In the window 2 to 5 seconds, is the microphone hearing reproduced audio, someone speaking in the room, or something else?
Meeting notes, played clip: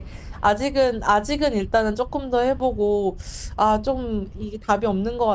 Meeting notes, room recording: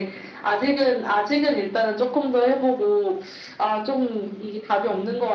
echo only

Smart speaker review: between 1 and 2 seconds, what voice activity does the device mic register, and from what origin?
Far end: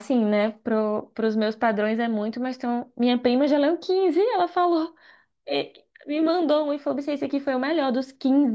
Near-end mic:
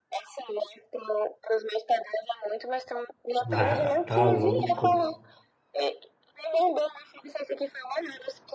echo only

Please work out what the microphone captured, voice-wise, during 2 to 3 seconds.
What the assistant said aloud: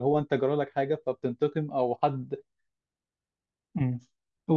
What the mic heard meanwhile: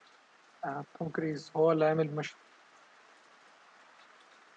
user only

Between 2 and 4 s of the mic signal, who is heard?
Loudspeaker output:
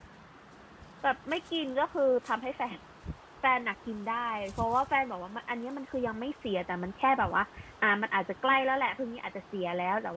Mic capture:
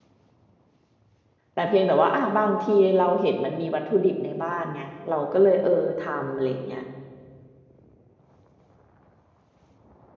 user only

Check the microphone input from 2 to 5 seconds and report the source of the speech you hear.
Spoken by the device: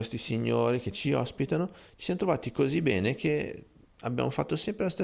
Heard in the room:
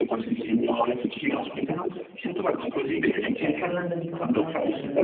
both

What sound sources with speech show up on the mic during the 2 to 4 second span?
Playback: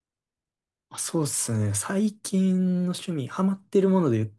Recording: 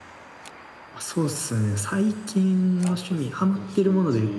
both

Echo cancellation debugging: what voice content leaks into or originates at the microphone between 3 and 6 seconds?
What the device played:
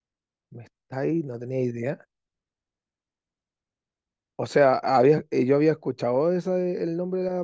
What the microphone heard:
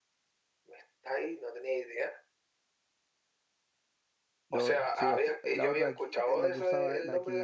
both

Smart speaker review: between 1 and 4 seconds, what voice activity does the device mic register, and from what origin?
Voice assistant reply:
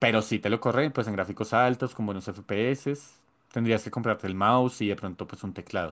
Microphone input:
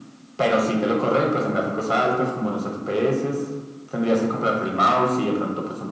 echo only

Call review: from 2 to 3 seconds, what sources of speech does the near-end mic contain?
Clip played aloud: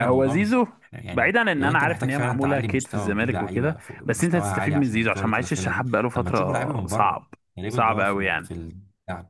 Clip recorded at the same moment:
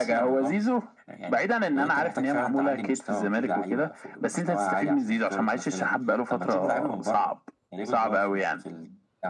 echo only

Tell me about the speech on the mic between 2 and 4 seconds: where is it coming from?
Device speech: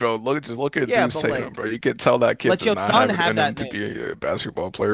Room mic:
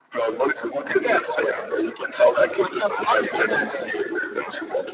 echo only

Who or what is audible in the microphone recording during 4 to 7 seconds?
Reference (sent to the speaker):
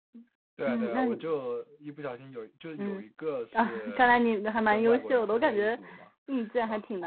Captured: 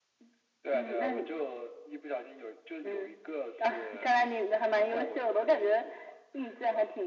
echo only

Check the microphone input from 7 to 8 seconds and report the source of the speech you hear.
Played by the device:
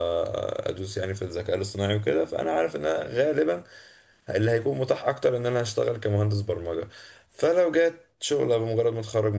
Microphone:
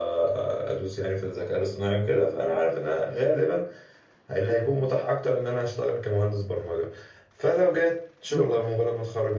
echo only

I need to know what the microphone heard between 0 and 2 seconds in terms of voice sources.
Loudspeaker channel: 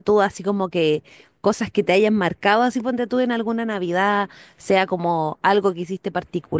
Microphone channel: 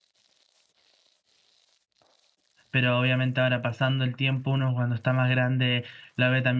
neither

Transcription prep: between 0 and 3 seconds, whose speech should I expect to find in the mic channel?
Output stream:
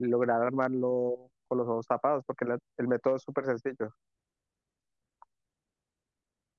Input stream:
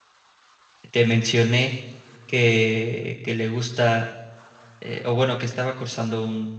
user only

